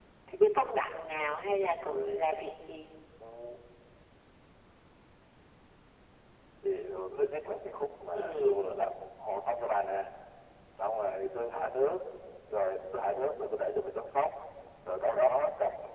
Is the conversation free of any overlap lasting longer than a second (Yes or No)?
Yes